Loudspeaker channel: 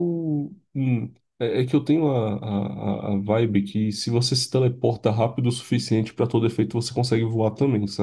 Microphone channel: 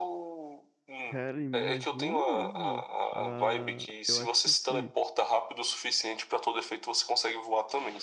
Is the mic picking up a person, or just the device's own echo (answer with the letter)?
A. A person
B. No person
A